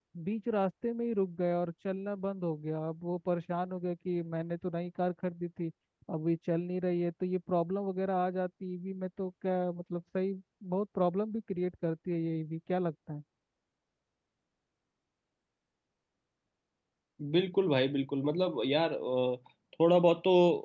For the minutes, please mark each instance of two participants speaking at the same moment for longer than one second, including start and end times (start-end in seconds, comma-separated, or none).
none